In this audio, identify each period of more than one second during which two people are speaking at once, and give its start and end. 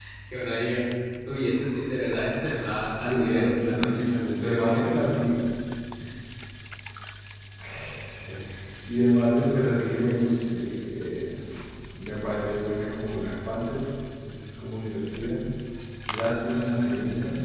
3.0-5.0

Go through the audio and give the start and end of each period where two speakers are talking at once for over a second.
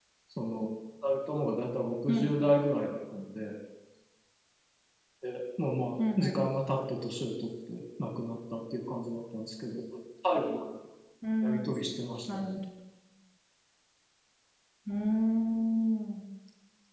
none

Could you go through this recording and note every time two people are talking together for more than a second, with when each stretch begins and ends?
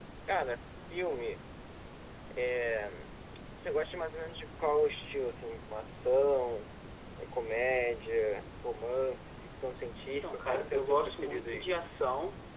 10.2-11.7

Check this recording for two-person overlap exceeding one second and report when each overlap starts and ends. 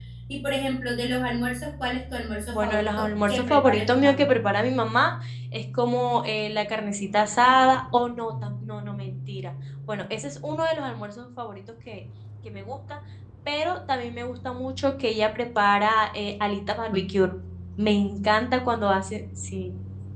2.5-4.3

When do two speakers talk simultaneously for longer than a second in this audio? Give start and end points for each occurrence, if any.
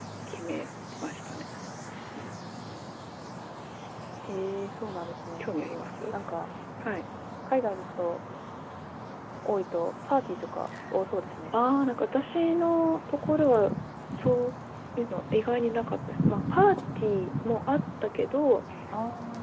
none

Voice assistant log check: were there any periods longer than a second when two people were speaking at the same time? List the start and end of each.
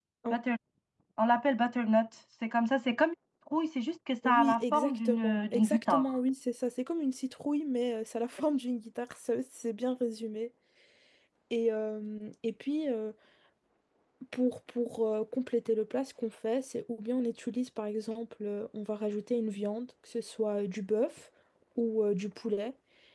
4.2-6.2

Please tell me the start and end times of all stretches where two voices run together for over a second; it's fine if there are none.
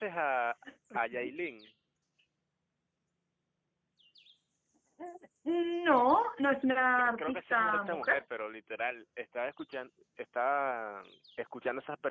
7.0-8.2

